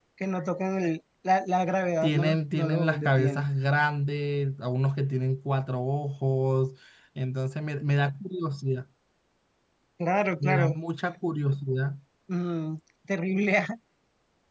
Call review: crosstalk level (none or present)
present